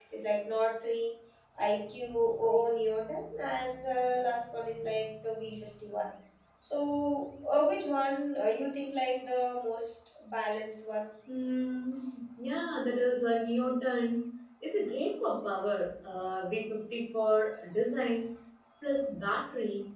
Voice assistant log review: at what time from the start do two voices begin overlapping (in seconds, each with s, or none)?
none